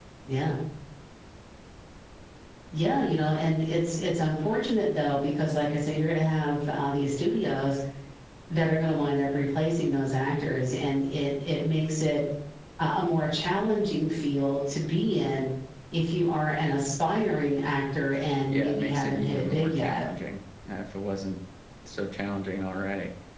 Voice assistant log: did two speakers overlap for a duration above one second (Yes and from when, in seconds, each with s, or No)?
Yes, from 18.5 s